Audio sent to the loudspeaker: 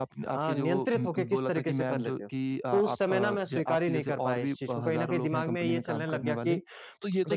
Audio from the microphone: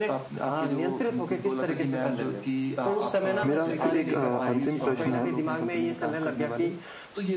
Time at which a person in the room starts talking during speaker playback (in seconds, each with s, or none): 3.5 s